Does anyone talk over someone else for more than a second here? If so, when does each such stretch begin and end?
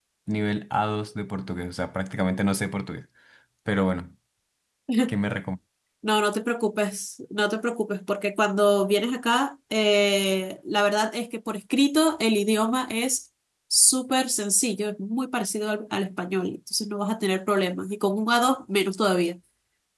none

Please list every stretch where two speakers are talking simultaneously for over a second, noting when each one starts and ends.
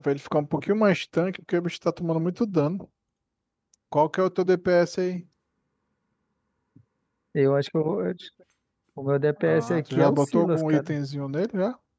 9.4-10.9

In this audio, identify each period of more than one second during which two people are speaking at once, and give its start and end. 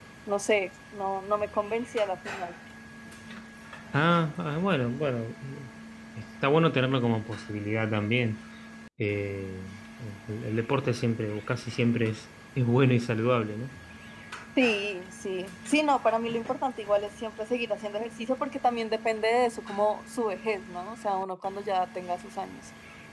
none

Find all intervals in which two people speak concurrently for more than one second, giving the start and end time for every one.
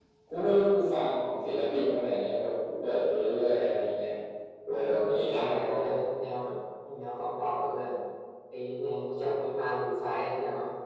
4.7-5.9

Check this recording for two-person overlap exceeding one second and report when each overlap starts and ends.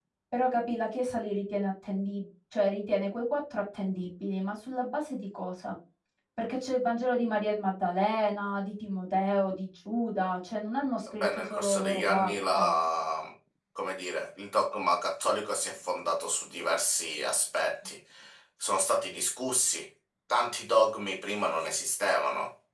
11.2-12.7

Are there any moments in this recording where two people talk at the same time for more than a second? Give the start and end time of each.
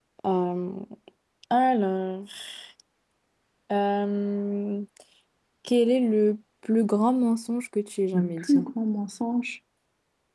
none

